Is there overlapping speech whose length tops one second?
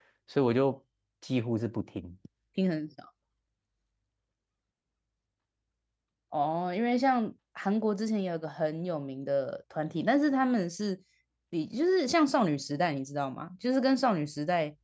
No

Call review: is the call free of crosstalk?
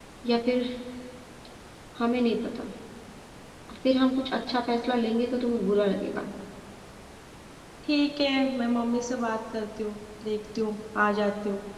Yes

